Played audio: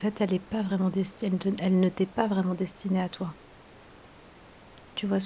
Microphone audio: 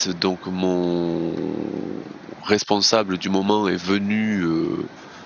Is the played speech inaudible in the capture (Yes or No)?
Yes